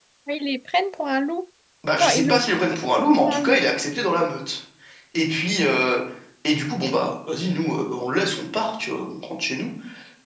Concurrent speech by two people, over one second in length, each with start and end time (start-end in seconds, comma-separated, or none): 1.9-3.6